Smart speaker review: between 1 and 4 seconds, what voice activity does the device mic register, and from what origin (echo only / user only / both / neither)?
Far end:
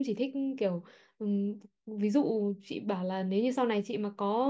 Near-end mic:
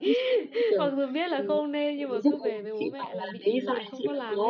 both